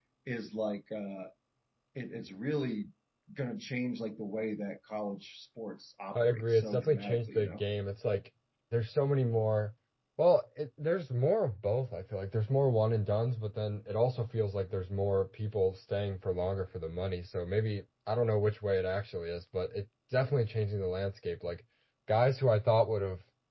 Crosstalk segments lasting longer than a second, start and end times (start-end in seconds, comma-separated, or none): 6.2-7.6